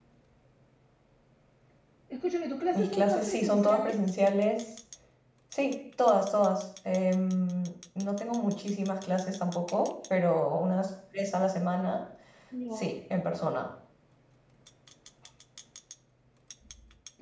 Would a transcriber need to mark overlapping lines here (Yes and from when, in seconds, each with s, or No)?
Yes, from 2.7 s